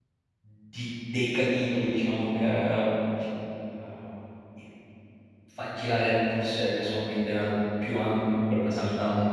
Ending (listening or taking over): listening